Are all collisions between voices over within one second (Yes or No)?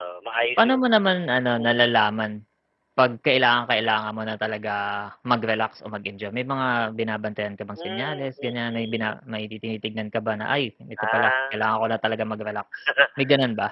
No